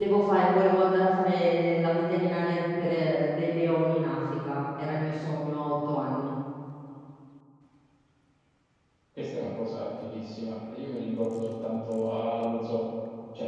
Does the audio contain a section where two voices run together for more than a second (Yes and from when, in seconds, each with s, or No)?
No